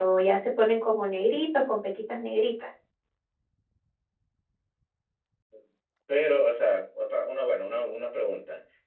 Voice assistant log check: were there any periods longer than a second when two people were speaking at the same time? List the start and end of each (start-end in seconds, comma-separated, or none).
none